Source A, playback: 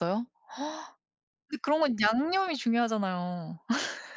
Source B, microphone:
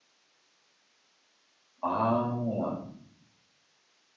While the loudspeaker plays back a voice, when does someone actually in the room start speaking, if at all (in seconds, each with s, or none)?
1.8 s